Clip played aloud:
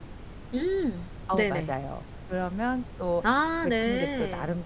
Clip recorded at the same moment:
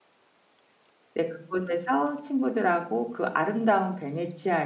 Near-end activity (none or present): present